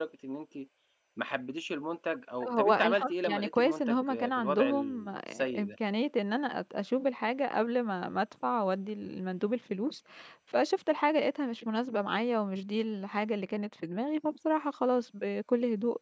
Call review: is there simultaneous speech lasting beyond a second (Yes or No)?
Yes